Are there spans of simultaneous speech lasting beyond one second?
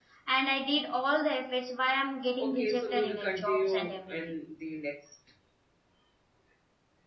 Yes, from 2.4 s

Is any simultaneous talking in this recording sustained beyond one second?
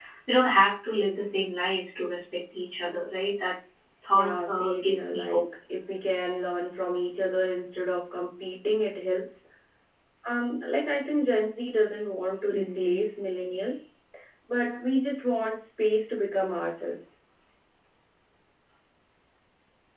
Yes, from 4.2 s

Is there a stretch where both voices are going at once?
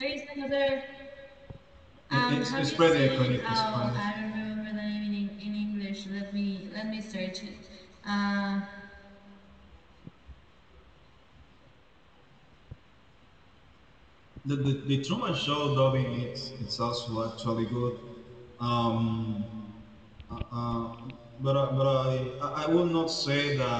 Yes, from 2.1 s

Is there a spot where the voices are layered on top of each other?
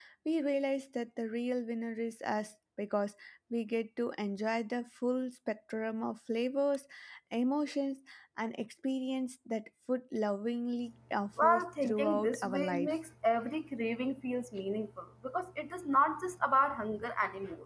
Yes, from 11.4 s

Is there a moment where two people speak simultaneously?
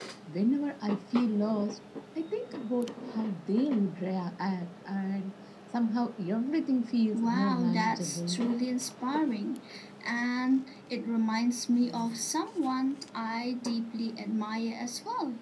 Yes, from 7.1 s

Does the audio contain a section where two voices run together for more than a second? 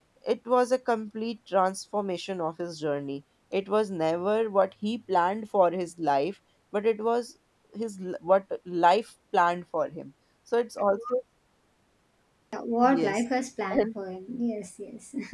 No

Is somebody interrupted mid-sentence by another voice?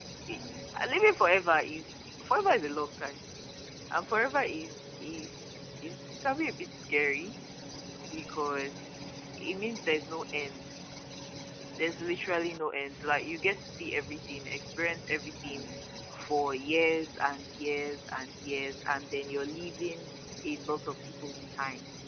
No

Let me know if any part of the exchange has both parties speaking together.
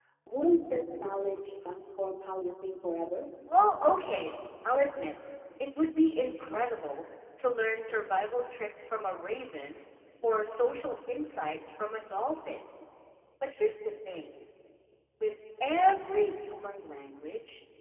No

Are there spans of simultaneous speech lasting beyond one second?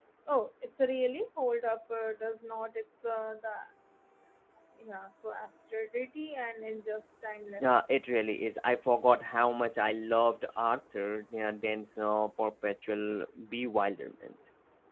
No

